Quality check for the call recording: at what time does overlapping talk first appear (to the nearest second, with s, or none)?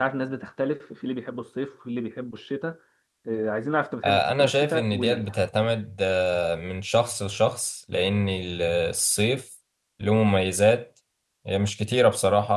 4 s